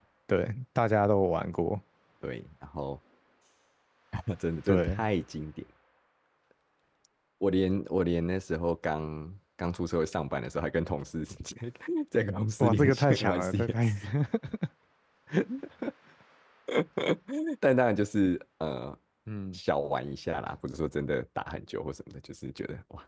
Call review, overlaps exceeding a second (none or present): present